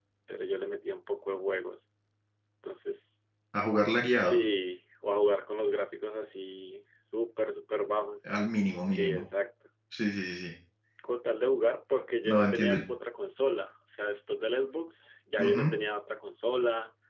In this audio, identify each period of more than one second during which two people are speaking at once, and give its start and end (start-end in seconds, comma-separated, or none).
none